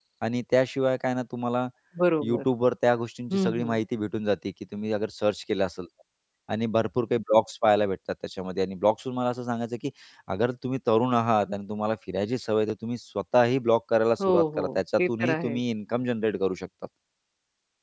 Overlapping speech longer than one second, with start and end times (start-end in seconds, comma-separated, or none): 14.2-15.6